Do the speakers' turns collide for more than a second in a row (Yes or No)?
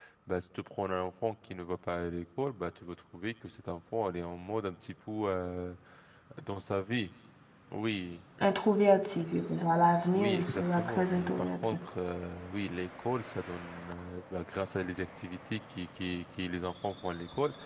Yes